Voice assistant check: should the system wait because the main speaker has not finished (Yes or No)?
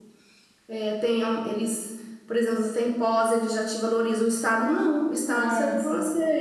Yes